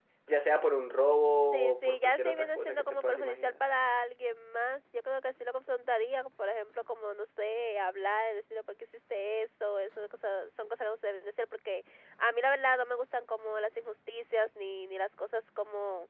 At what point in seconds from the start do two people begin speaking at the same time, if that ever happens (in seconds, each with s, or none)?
1.5 s